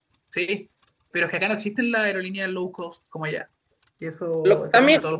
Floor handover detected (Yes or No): Yes